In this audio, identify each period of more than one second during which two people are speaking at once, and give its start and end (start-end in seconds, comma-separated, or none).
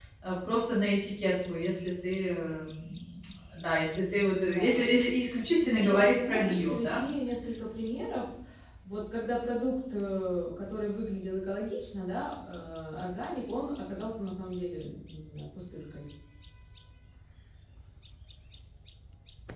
5.7-7.0